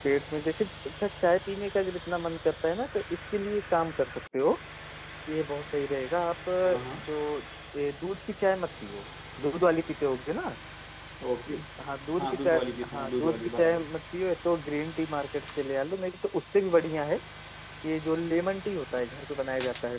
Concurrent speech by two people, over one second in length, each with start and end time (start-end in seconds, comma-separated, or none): 12.2-13.9